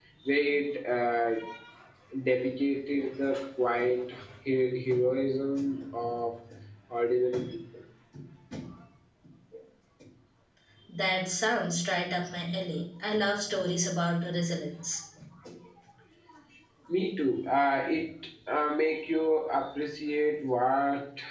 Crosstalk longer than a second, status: none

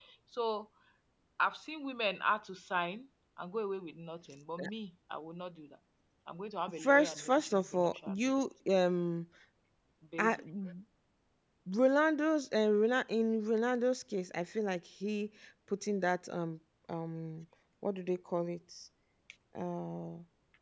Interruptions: present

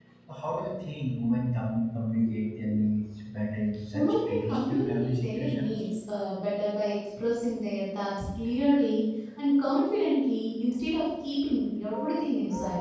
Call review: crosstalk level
present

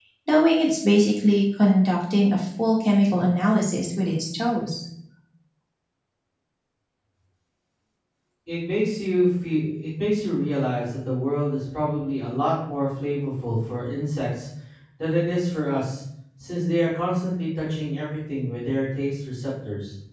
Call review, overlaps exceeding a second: none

